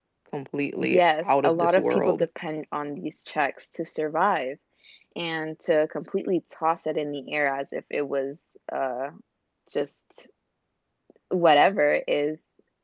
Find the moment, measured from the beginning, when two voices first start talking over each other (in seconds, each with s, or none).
0.9 s